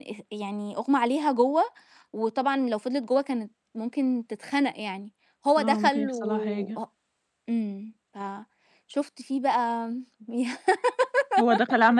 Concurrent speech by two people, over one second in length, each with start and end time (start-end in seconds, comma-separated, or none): 5.6-6.8